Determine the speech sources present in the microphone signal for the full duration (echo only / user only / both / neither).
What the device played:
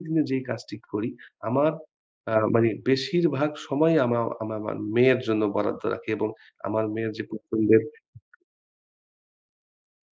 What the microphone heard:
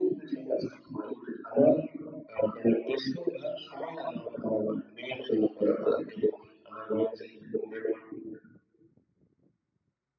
echo only